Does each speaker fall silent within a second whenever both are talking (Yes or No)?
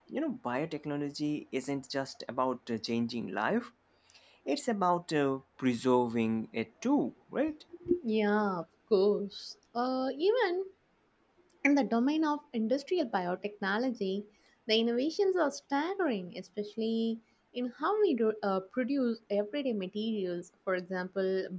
Yes